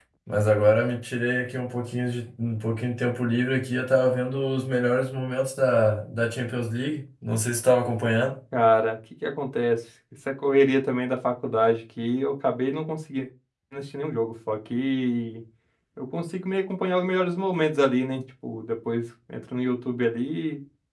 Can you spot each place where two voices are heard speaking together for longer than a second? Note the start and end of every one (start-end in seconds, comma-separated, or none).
none